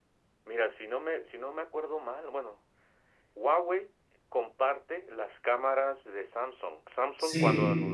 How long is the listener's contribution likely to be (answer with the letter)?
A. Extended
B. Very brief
B